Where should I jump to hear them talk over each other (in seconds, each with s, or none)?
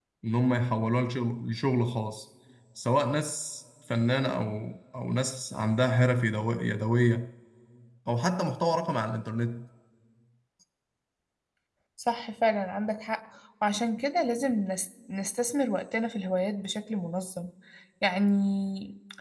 none